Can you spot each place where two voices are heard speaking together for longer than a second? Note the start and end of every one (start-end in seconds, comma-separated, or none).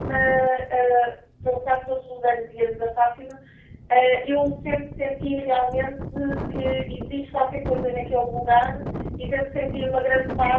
none